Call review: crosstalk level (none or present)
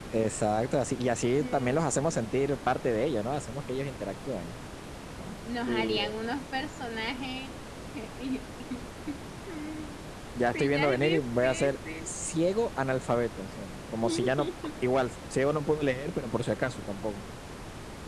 present